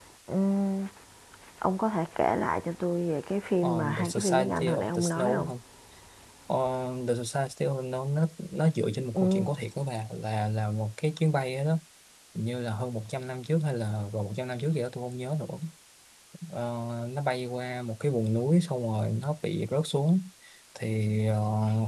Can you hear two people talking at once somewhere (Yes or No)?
Yes